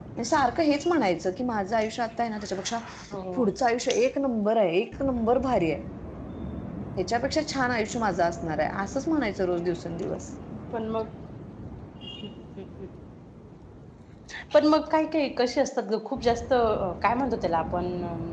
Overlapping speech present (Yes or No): No